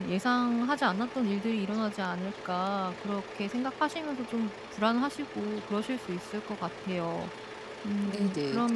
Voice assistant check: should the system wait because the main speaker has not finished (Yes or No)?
No